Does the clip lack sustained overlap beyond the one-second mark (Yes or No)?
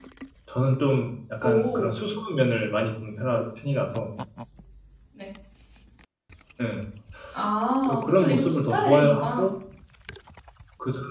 No